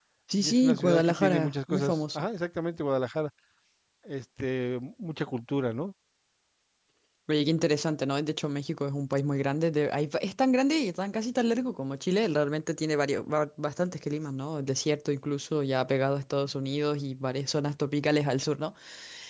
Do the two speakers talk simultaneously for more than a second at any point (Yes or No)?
Yes